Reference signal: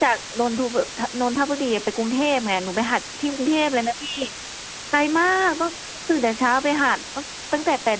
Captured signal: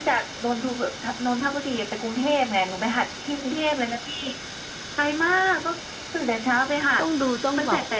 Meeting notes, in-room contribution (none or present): present